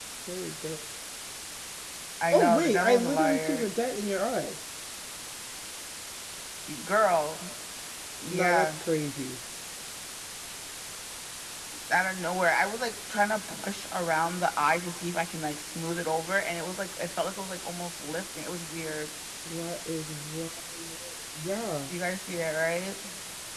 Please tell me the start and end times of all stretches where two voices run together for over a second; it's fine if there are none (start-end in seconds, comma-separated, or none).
2.3-3.7